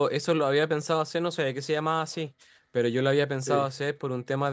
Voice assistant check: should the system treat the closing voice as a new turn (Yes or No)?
No